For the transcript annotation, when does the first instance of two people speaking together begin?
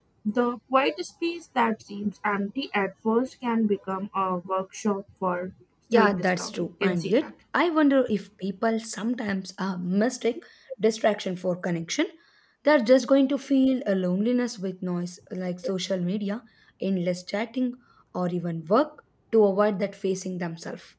5.9 s

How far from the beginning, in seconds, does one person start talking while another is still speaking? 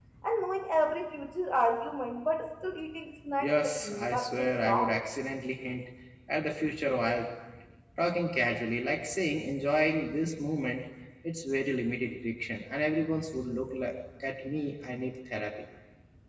3.4 s

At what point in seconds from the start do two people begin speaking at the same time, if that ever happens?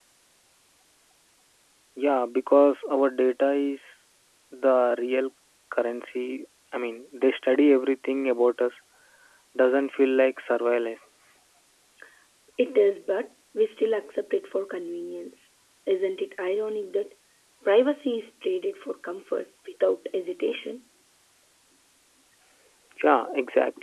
none

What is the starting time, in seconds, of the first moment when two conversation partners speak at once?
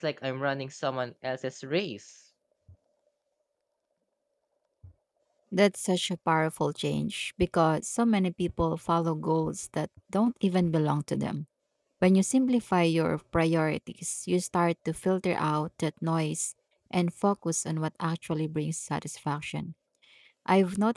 none

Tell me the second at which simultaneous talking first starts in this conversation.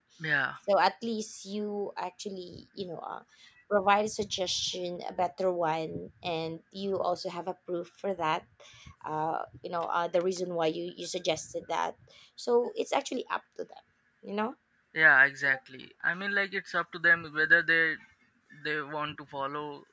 none

